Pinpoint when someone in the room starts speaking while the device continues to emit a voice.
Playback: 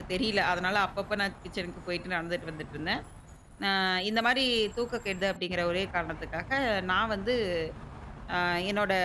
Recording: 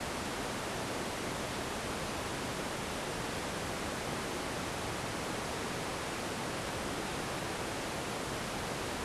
none

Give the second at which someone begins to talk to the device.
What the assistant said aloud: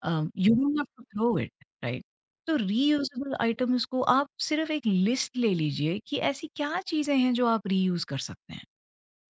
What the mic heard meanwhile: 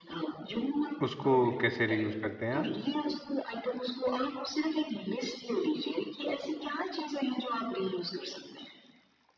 1 s

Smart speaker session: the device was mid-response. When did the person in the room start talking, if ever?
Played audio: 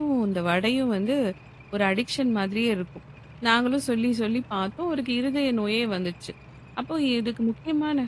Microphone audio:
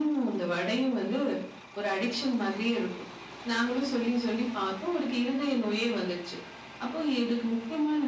none

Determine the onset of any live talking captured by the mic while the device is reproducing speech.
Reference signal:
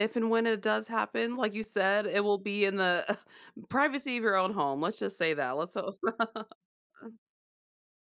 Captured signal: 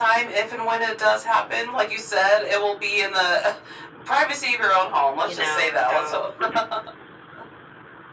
5 s

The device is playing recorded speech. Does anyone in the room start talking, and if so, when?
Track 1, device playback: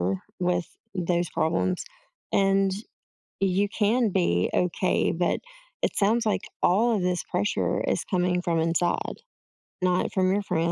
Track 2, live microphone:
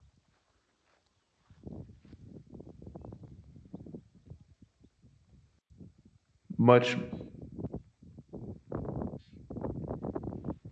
7 s

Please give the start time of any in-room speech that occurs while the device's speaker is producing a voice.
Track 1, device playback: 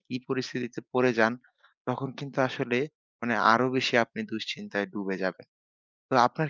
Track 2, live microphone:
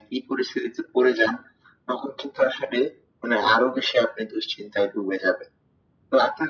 none

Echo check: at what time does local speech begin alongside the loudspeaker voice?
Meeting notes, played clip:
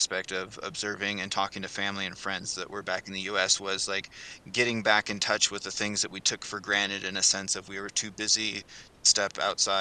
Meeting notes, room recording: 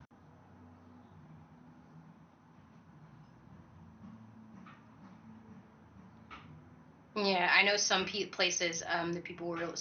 7 s

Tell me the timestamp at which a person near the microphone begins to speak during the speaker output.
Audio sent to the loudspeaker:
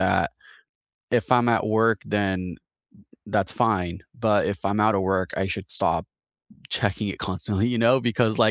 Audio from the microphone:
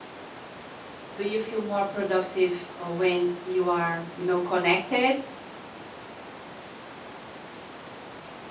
1 s

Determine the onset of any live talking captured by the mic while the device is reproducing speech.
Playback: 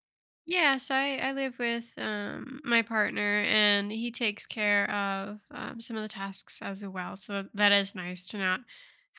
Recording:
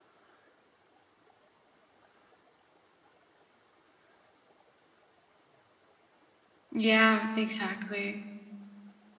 7 s

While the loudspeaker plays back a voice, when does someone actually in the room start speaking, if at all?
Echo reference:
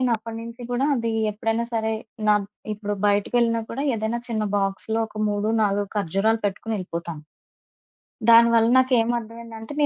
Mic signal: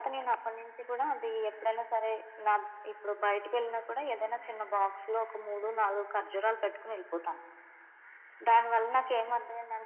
none

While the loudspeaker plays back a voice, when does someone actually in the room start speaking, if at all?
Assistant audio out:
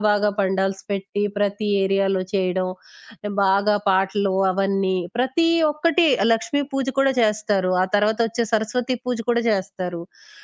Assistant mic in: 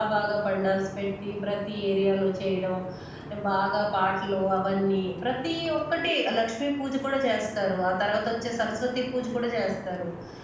none

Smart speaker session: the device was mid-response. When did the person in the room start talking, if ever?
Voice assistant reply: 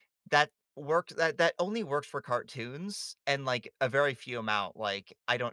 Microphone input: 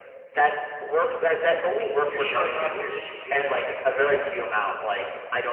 2 s

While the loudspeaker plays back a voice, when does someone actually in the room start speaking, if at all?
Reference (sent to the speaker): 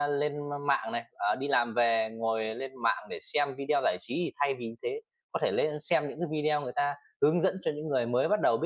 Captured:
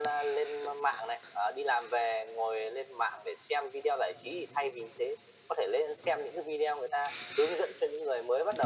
none

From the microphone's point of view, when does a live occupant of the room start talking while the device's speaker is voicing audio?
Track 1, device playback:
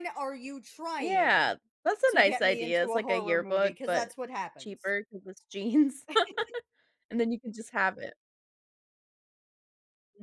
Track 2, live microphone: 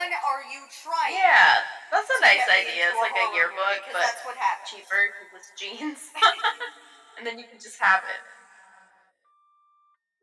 none

